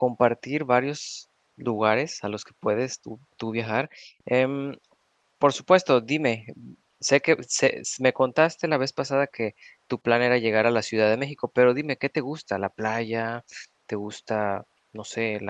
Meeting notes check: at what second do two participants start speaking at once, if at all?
none

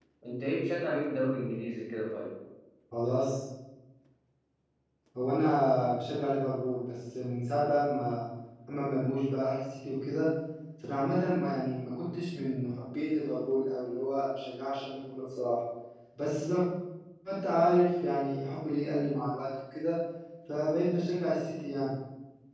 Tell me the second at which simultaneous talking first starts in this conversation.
none

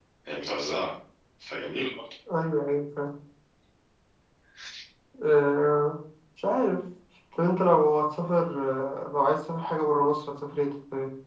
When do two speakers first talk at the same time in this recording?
none

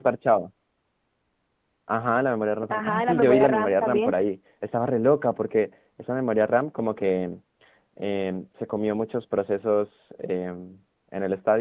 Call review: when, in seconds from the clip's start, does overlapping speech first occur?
2.7 s

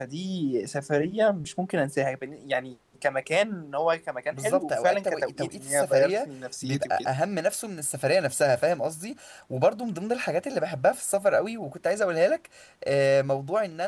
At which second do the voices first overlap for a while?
4.3 s

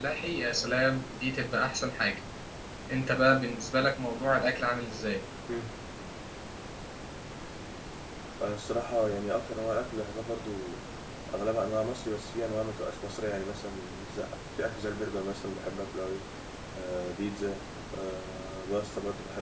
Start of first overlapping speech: none

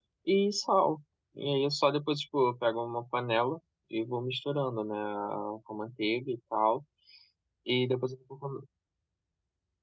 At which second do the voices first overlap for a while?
none

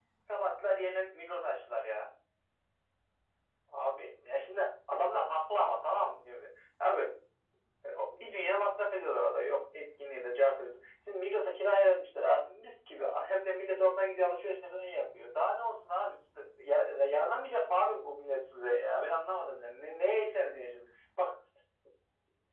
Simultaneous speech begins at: none

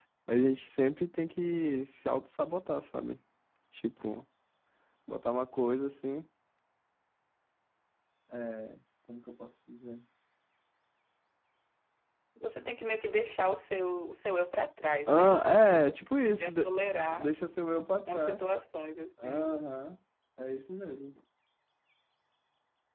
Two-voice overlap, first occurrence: 15.1 s

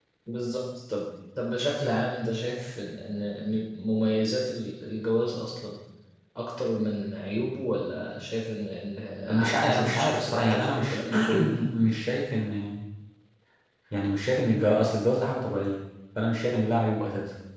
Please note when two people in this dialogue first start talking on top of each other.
9.3 s

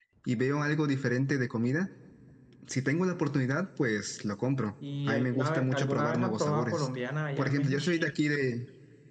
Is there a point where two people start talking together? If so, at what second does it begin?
5.1 s

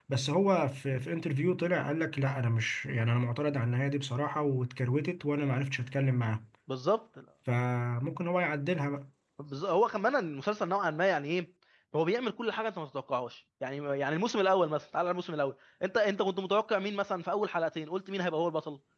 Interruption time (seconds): none

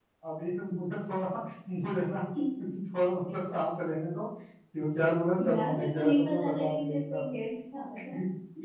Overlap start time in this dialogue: 5.4 s

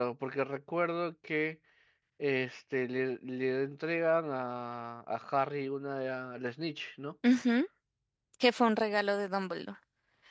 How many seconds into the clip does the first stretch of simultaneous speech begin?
none

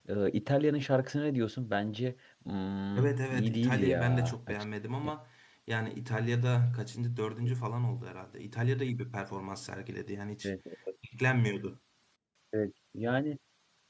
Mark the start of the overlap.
3.0 s

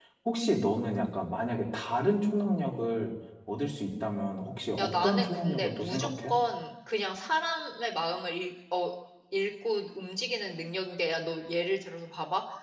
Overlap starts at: 4.8 s

